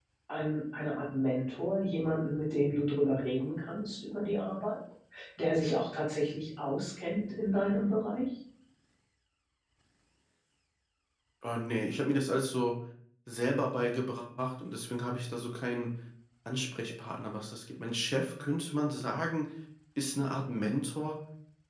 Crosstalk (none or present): none